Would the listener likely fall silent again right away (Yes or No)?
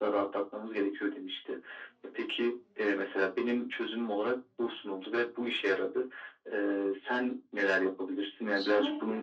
No